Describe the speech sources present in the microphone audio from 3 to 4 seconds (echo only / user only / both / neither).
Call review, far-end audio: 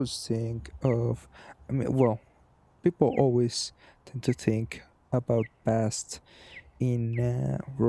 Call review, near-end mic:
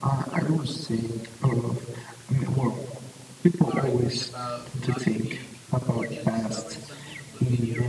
both